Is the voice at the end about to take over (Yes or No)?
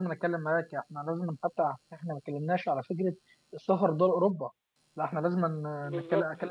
No